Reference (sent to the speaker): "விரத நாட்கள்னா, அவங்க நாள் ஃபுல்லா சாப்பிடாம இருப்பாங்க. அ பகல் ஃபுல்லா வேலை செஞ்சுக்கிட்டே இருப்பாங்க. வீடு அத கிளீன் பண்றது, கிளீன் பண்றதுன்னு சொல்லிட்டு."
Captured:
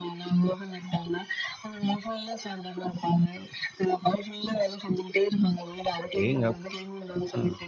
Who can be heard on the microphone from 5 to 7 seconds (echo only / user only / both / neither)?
both